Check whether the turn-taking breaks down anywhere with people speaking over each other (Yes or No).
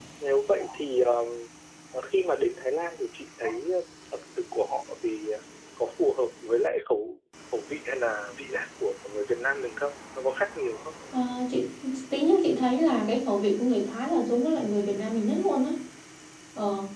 No